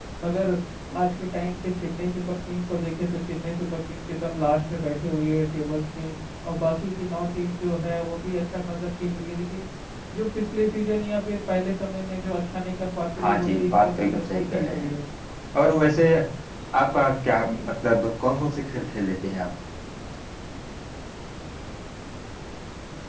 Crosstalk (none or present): present